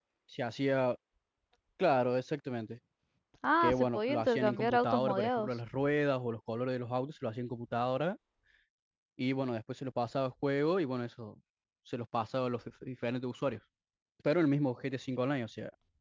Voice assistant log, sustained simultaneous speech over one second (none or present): present